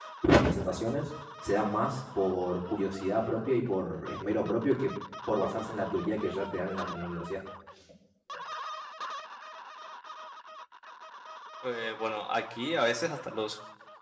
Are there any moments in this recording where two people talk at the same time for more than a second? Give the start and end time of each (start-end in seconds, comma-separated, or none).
none